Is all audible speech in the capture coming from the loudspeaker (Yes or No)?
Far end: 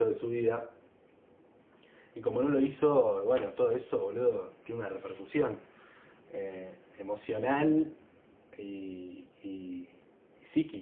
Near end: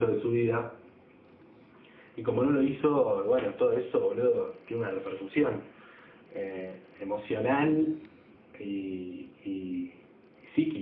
Yes